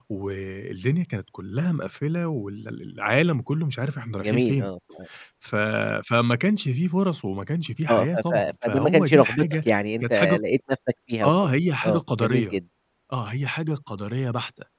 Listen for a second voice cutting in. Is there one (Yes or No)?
Yes